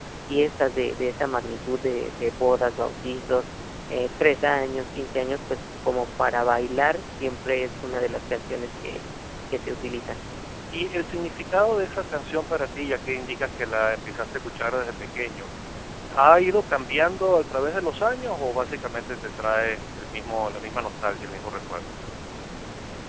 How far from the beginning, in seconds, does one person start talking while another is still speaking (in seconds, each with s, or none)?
none